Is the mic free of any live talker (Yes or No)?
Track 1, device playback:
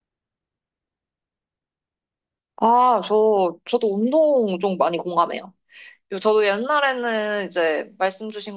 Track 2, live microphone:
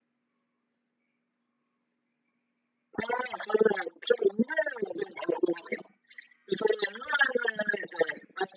Yes